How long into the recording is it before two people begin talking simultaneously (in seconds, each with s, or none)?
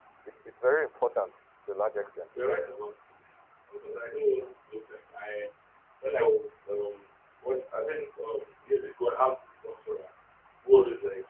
none